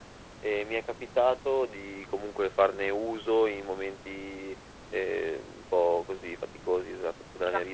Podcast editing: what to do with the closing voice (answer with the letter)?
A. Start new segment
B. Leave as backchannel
B